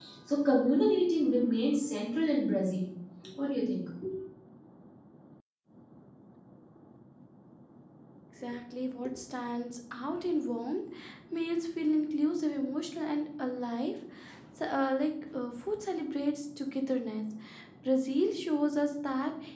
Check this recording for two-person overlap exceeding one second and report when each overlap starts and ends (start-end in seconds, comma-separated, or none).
none